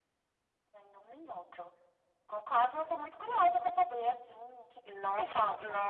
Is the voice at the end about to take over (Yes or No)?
Yes